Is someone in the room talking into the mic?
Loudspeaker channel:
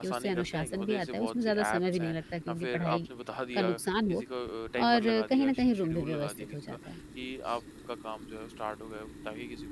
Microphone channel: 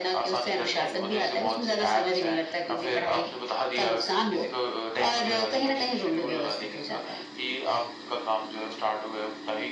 No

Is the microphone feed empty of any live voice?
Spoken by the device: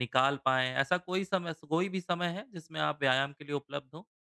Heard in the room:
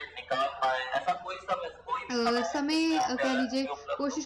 No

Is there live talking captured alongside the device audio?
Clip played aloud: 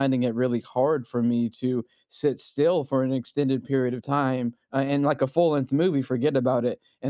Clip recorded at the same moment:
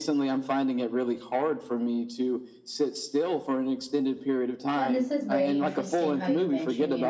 Yes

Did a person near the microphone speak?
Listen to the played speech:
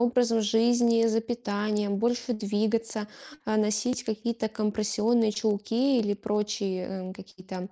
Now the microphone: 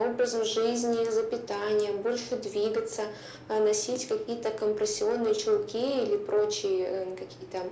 No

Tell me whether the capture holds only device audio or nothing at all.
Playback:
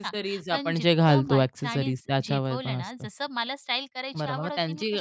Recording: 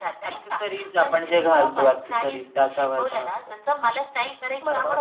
Yes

